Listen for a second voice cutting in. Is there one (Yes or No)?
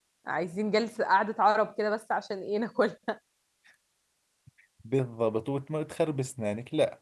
No